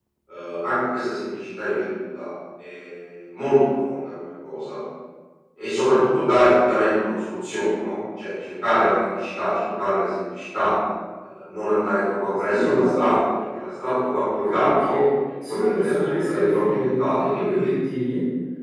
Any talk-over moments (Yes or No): Yes